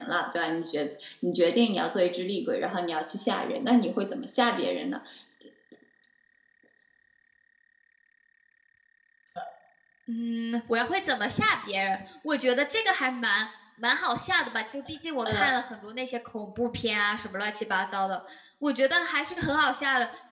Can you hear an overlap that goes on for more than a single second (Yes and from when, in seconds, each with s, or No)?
No